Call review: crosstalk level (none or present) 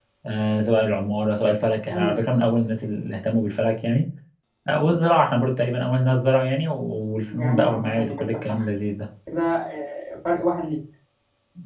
present